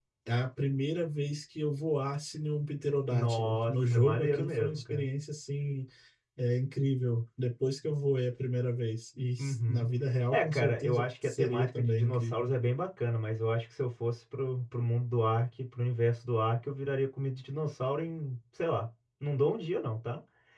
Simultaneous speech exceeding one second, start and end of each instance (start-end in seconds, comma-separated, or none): 3.1-5.0, 10.3-12.5